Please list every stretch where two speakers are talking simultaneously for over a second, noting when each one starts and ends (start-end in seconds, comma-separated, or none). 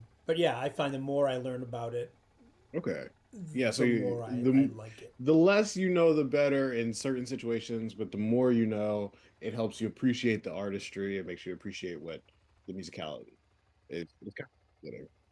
3.5-4.8